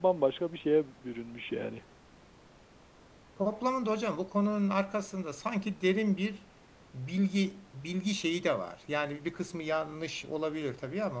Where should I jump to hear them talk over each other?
none

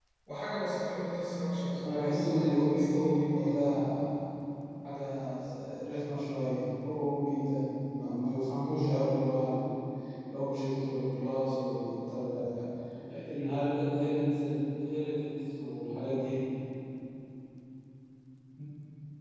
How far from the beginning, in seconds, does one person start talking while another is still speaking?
1.8 s

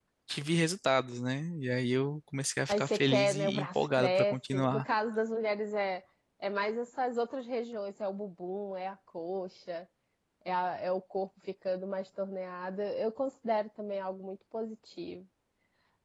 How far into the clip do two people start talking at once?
2.7 s

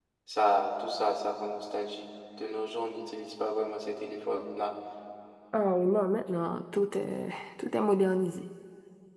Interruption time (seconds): none

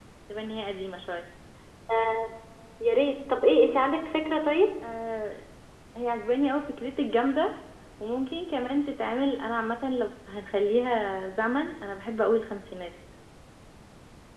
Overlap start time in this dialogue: none

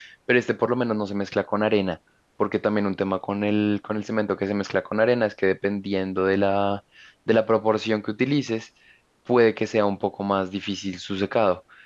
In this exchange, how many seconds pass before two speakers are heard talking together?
none

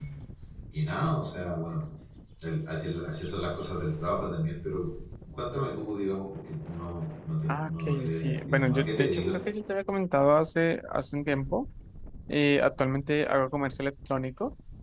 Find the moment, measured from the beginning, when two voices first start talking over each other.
7.5 s

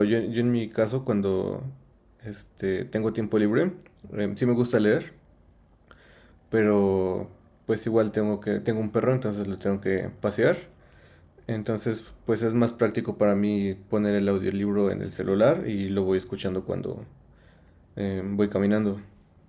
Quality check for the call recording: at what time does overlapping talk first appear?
none

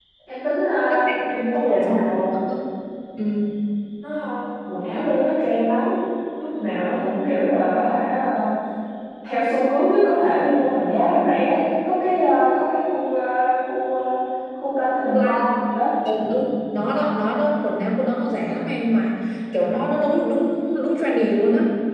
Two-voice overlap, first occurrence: 0.9 s

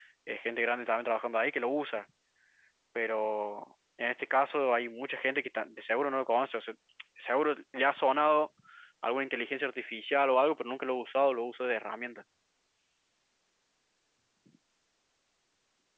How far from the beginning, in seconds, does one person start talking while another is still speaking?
none

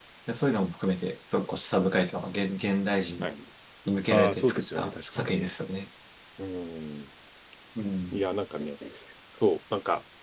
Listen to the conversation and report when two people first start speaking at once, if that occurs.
4.1 s

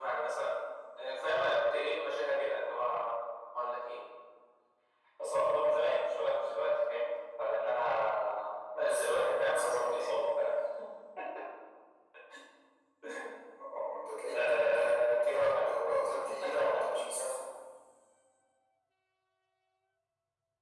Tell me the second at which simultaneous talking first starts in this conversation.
8.7 s

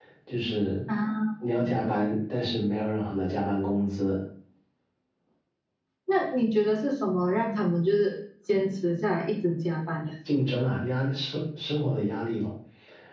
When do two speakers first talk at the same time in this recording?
none

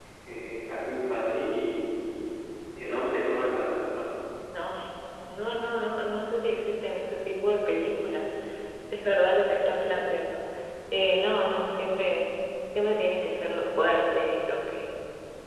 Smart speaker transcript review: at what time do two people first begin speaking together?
none

